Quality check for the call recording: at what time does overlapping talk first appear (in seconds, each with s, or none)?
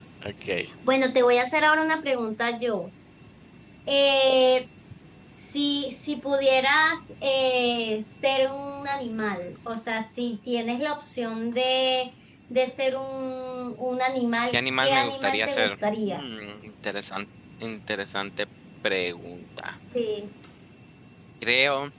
14.5 s